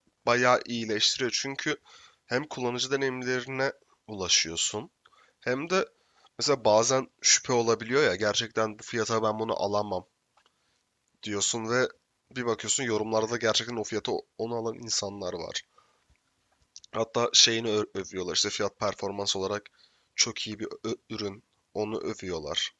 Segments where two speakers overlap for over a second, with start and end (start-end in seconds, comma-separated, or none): none